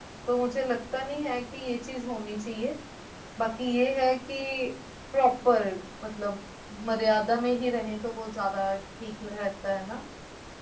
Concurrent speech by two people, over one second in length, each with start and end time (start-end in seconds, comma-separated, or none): none